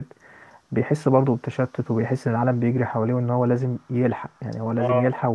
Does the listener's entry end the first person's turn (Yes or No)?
No